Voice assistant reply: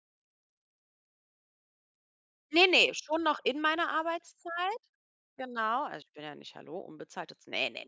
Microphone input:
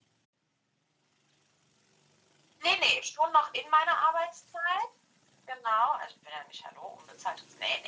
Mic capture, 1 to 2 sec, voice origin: neither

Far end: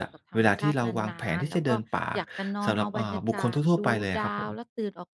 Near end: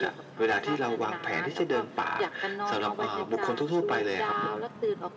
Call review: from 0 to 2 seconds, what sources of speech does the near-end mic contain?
echo only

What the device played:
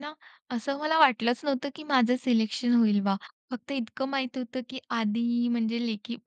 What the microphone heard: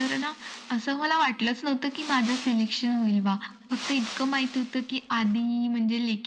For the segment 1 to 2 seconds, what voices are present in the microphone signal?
echo only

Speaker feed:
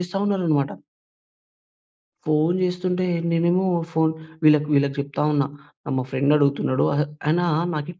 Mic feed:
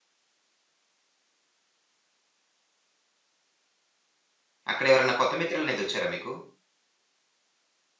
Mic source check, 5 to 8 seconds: user only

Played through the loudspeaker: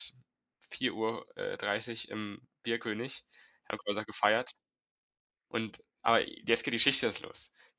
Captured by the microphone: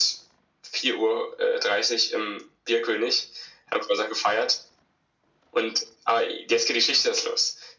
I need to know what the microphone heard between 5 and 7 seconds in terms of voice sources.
echo only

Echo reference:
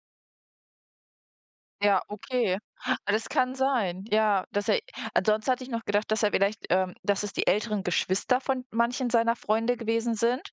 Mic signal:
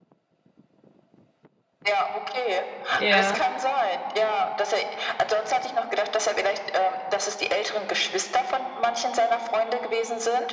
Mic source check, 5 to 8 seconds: echo only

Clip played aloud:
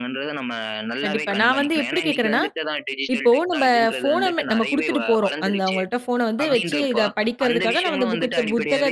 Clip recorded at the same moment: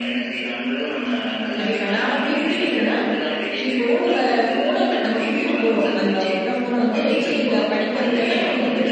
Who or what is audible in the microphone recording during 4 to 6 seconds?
echo only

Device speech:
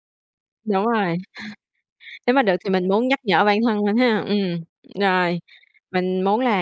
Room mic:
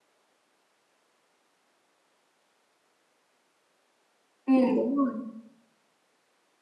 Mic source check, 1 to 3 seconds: neither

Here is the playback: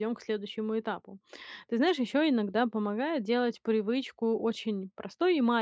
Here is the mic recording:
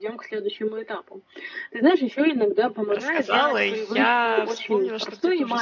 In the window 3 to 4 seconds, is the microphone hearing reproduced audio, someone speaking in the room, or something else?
both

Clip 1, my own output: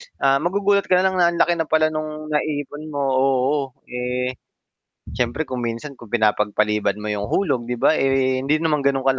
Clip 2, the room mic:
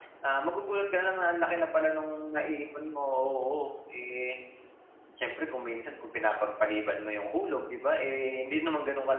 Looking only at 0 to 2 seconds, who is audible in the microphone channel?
echo only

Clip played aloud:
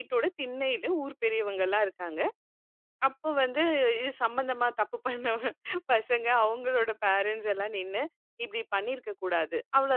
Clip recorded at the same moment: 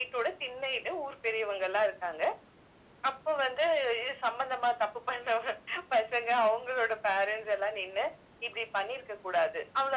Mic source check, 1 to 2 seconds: echo only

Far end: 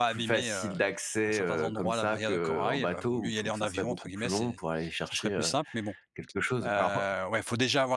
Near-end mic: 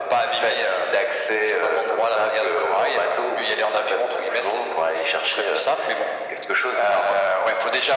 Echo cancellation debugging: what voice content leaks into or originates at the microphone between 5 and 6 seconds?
echo only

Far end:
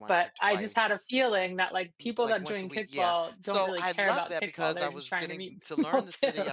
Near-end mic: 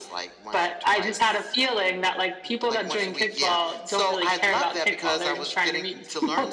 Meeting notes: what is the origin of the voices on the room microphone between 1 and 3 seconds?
echo only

